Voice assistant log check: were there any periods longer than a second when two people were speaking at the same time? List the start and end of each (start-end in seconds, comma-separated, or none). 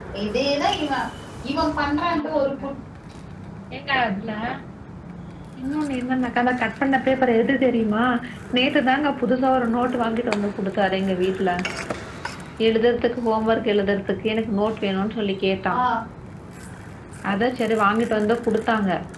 none